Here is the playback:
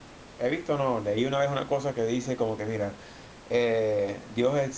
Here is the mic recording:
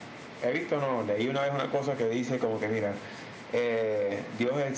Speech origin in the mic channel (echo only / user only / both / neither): echo only